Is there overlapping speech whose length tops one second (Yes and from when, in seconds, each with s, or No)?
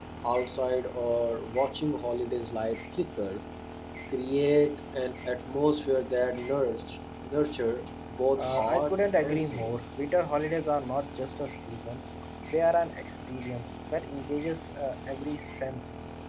Yes, from 8.4 s